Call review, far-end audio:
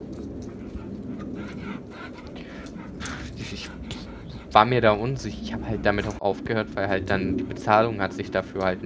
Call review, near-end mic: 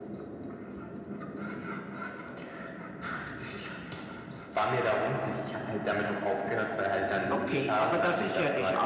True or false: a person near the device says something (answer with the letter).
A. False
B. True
B